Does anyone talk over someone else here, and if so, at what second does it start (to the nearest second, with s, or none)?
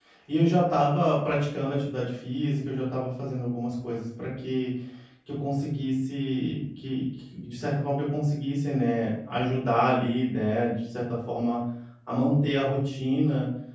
none